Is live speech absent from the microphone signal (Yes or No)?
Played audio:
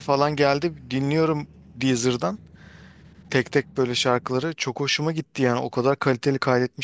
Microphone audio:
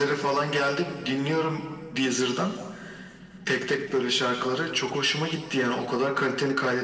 Yes